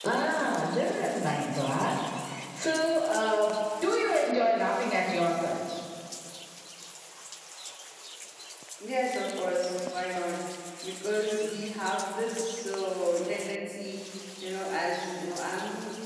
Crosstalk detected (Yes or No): No